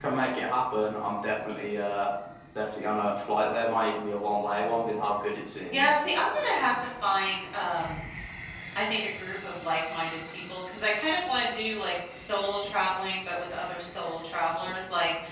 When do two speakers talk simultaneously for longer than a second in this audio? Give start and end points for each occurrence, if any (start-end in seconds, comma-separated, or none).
none